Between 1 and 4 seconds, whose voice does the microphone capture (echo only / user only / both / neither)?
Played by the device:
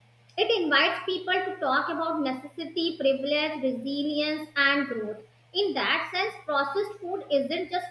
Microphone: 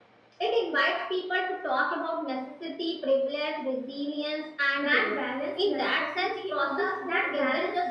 echo only